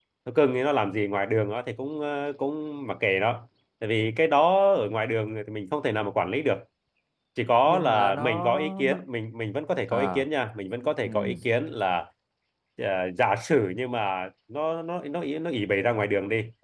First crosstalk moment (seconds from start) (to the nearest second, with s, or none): 8 s